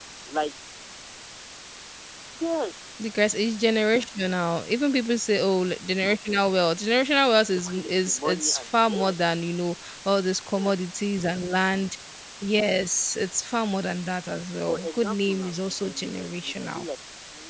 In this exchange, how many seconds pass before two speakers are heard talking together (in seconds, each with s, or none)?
7.5 s